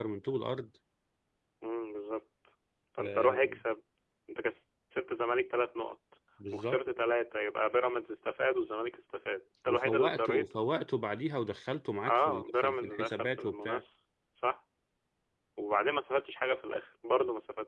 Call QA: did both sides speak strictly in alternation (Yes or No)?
No